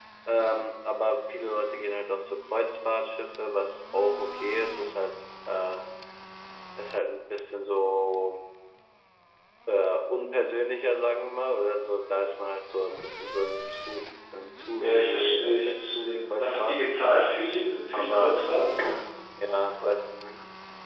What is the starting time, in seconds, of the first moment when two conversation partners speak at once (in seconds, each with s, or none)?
14.8 s